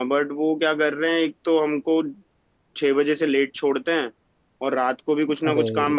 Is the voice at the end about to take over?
No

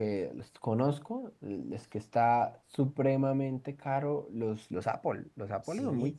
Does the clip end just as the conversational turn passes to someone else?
No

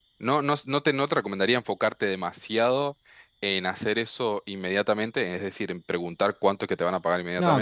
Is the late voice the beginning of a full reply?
Yes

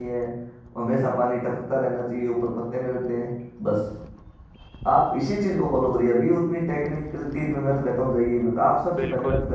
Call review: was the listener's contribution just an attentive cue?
No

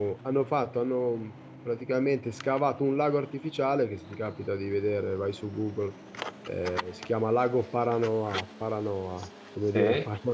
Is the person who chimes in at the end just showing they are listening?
Yes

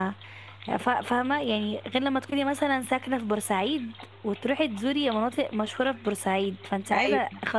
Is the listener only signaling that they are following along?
Yes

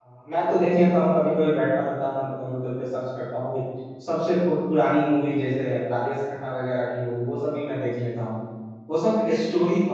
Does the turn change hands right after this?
No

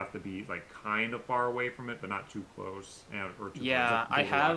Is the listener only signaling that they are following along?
No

